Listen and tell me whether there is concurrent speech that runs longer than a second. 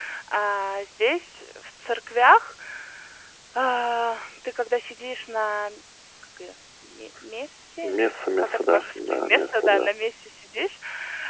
Yes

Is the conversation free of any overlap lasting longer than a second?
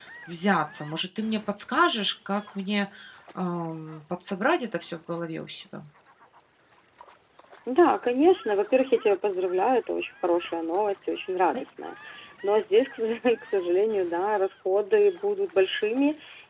Yes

